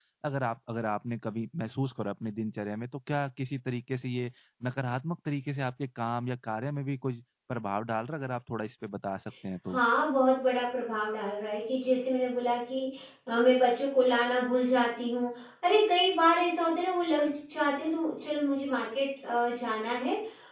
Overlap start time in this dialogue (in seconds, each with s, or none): none